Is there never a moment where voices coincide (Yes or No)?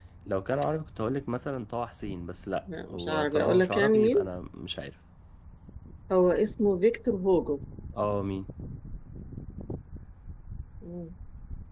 No